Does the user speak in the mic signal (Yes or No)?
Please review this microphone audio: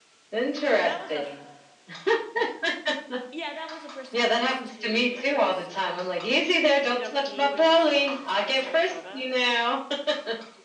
Yes